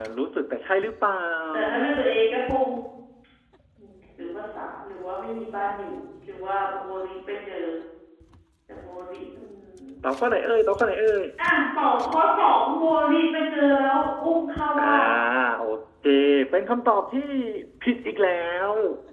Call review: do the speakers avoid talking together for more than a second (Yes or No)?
Yes